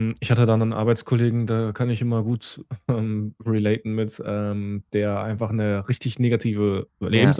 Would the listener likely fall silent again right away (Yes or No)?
Yes